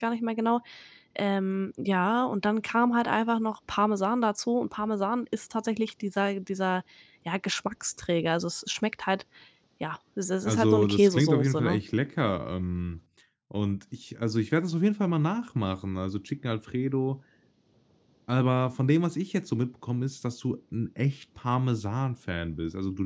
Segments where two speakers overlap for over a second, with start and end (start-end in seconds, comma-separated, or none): 10.4-11.8